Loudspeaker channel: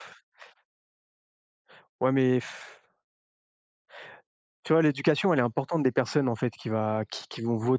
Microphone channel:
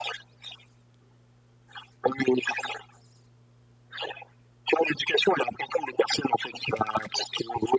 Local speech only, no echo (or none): none